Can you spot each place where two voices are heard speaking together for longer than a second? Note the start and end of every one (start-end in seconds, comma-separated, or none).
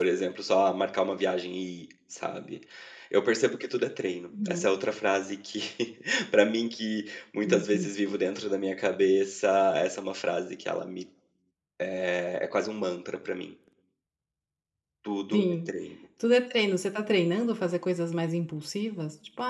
none